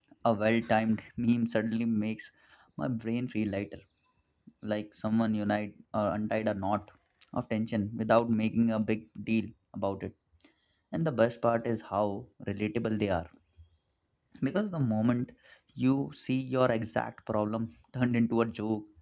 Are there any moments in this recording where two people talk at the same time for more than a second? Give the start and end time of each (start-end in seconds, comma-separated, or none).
none